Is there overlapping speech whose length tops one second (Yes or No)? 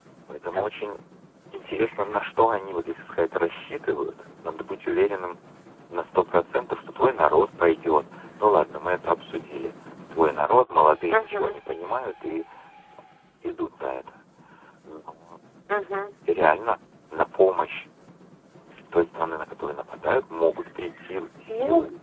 No